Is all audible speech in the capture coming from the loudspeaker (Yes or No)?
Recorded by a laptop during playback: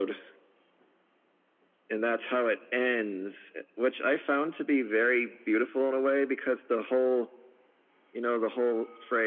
Yes